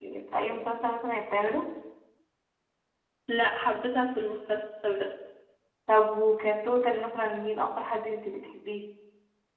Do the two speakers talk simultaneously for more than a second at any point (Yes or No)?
No